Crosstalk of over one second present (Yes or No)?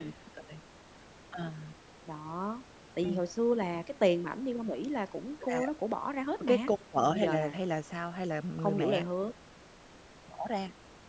No